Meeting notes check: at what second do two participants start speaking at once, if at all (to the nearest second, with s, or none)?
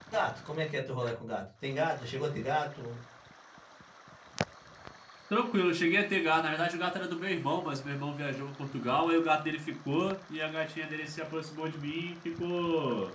none